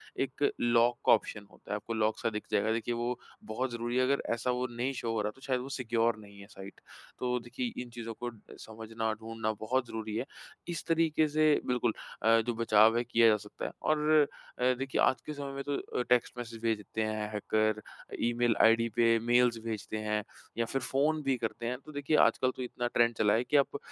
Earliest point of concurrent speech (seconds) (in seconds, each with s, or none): none